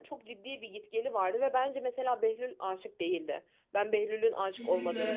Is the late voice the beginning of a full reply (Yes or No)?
No